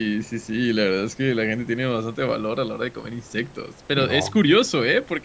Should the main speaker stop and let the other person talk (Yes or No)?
No